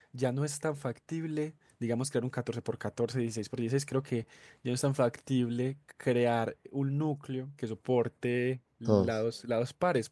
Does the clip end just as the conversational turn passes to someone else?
No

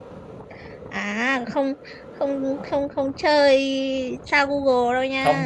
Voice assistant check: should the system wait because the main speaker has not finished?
No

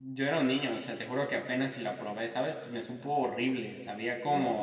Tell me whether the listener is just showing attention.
No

